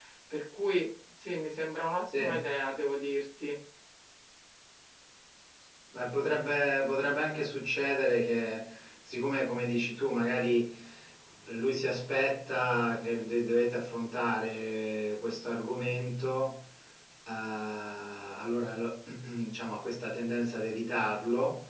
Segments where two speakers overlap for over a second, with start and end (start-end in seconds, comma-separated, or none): none